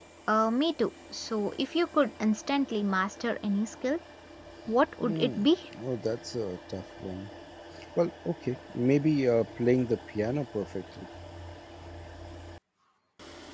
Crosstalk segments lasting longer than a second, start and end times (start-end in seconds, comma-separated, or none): none